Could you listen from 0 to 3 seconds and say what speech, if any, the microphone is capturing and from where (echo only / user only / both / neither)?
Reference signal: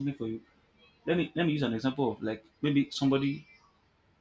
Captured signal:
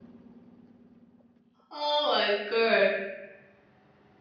user only